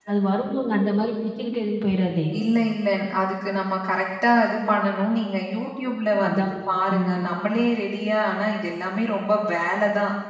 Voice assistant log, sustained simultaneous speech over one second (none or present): none